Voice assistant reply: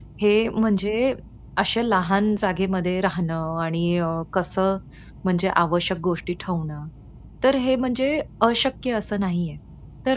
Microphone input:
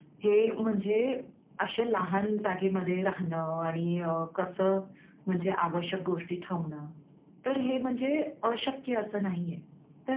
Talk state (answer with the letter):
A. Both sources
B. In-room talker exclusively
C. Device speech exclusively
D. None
C